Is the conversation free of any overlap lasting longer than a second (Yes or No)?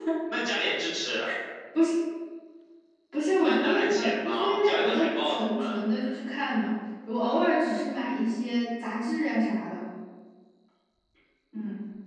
No